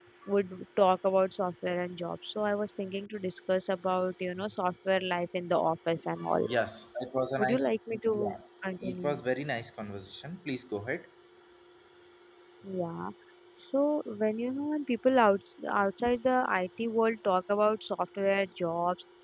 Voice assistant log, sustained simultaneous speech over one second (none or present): none